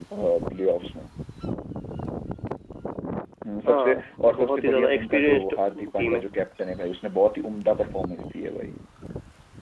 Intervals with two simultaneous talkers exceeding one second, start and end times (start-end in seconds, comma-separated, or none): 3.7-5.4